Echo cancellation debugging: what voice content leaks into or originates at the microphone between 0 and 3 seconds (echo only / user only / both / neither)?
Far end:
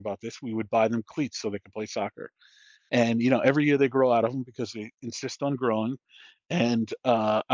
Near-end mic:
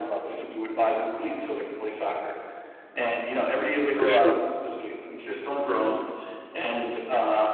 echo only